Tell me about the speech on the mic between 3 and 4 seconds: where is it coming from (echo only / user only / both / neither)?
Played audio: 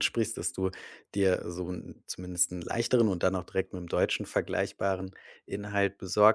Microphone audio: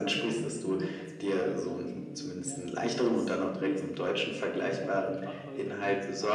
both